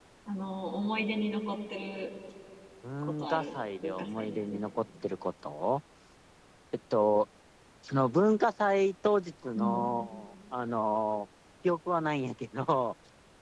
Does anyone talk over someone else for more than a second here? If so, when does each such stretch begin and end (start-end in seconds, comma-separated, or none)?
3.0-4.6